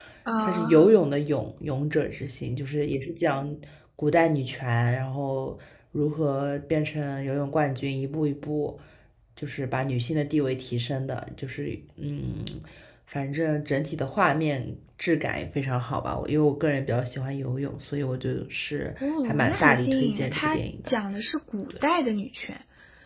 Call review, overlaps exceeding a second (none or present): present